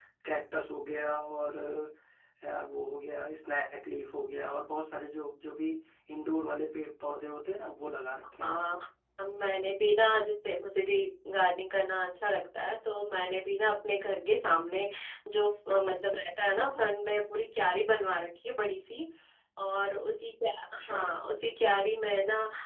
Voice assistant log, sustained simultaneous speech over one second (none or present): none